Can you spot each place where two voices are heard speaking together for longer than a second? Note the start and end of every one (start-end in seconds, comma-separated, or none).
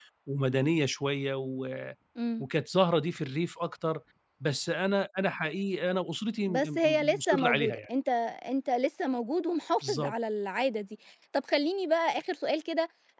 6.5-7.9